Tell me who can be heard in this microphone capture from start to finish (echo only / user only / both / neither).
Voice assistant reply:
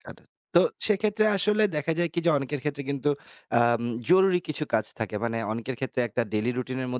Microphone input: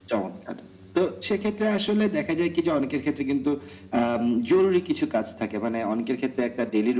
echo only